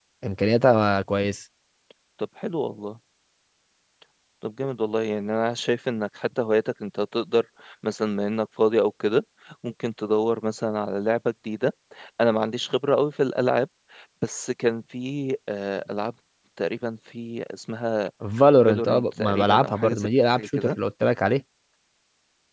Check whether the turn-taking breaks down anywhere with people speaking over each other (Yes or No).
Yes